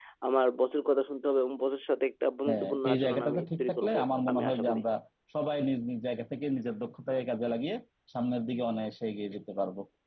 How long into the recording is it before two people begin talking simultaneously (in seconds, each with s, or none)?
2.5 s